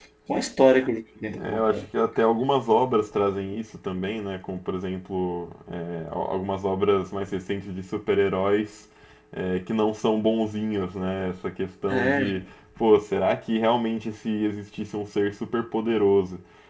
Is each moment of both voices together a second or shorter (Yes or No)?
Yes